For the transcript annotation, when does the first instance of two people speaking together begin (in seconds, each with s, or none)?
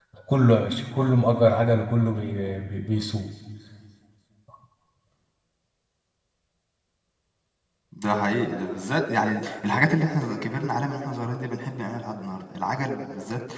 none